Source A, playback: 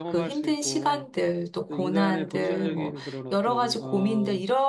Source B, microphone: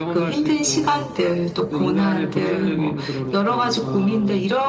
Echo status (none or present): present